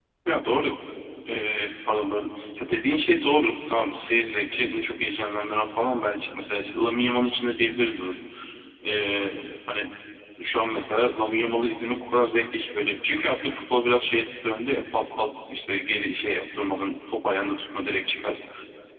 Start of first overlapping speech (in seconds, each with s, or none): none